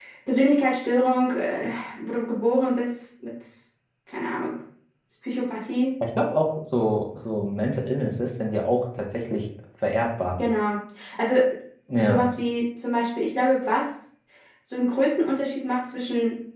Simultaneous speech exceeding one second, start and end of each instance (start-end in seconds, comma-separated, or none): none